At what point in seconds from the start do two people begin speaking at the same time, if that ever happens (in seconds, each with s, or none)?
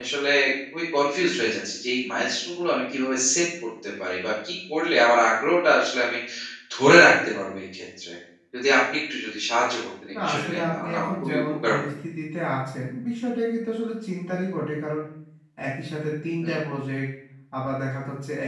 10.1 s